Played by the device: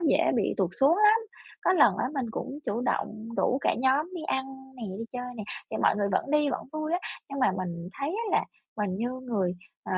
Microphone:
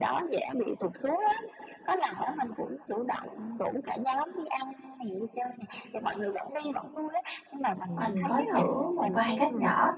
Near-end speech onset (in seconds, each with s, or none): 8.0 s